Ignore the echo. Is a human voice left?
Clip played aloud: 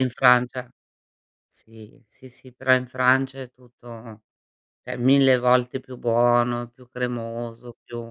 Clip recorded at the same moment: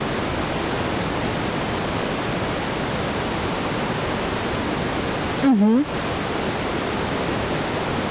Yes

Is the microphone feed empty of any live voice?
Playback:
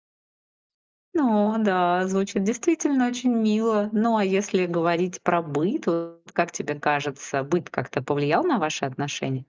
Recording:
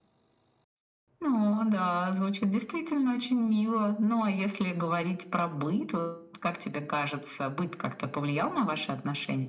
Yes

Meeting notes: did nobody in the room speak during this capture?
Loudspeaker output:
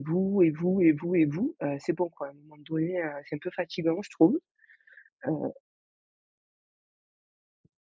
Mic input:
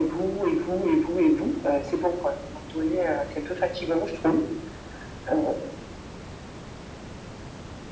Yes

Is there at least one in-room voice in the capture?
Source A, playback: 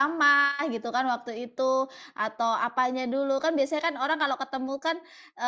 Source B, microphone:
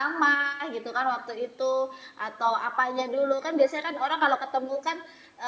No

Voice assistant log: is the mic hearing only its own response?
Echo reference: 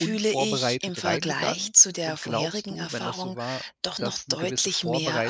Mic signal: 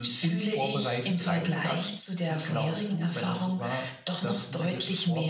Yes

